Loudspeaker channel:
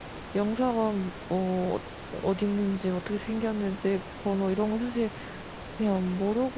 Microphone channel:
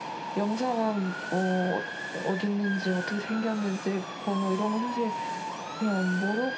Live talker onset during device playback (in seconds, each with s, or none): none